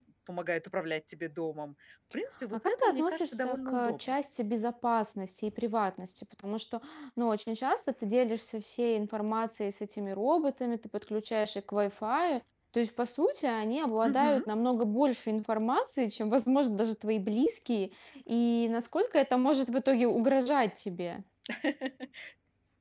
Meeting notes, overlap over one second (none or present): present